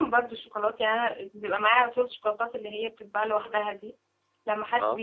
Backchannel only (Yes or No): Yes